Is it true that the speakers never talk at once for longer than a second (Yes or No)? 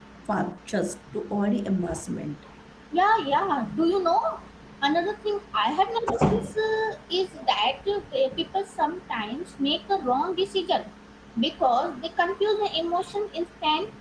Yes